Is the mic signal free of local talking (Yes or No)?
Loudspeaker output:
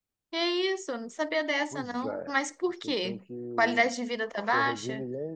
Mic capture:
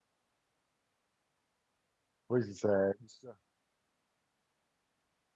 No